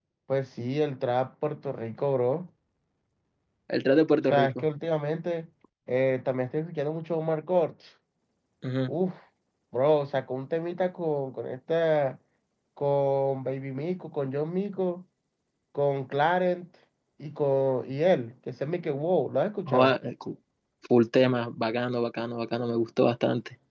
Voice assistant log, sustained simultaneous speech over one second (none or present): none